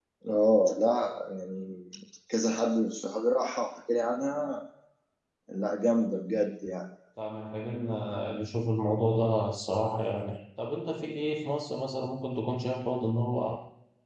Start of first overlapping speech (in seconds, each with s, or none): none